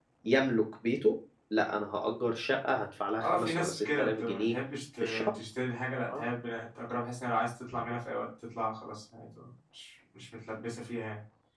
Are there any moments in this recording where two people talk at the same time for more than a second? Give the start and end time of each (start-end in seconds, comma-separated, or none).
3.2-4.5